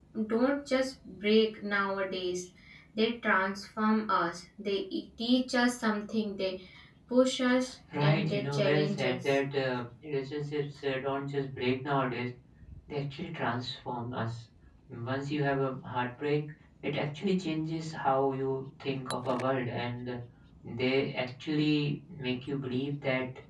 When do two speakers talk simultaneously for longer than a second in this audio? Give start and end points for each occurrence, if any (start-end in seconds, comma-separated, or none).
8.0-9.4